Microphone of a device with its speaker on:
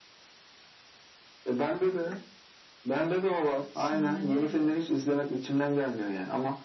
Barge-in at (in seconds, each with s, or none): 3.7 s